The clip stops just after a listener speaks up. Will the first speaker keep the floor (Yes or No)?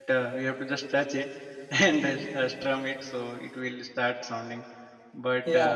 Yes